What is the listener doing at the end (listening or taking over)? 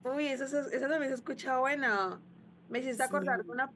listening